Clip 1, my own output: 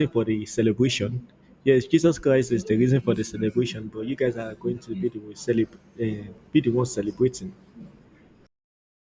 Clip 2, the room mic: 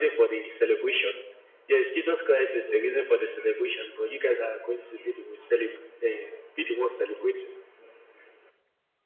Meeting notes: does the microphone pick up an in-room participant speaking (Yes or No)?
No